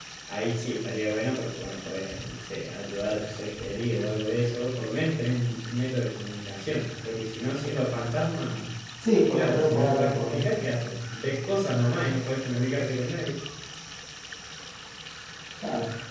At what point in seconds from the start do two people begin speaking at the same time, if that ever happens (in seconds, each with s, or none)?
9.3 s